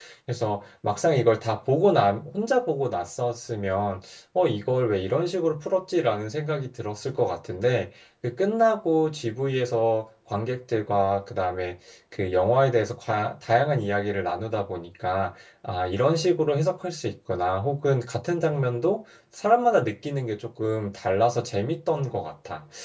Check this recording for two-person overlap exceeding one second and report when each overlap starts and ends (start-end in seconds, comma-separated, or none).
none